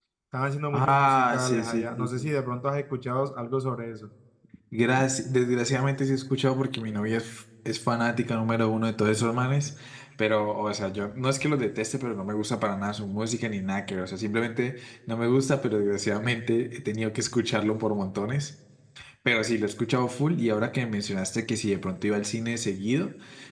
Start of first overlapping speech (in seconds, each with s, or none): 0.7 s